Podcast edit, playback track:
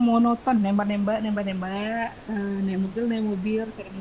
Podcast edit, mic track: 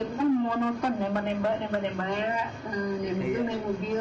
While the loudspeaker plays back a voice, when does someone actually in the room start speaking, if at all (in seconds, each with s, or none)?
3.0 s